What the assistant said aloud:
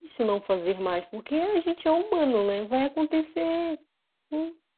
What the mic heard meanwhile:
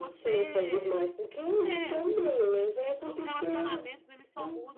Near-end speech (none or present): present